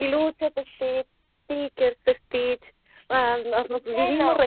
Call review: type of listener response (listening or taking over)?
listening